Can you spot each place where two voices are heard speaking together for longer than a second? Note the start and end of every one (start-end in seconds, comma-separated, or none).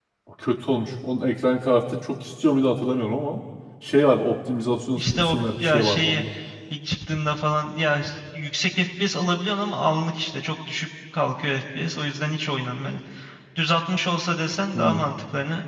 4.9-6.2